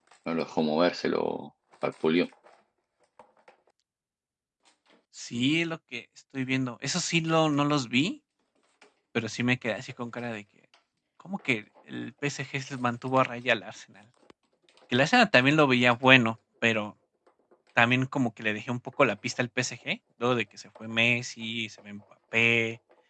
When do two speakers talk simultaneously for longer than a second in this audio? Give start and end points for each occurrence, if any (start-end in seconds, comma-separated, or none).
none